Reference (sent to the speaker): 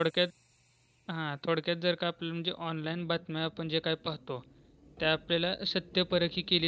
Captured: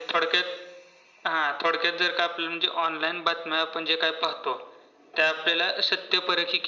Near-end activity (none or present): none